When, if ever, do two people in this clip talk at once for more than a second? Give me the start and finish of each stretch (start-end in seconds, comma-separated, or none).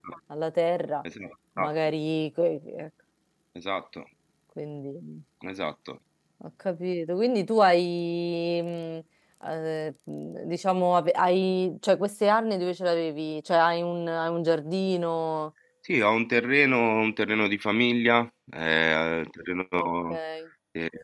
none